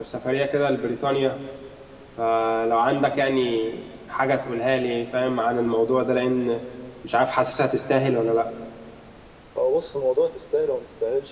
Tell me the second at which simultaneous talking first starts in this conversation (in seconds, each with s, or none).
none